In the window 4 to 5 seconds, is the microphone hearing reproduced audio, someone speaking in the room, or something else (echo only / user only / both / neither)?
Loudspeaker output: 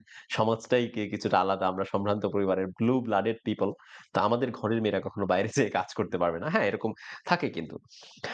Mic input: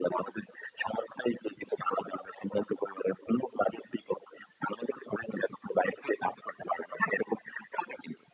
echo only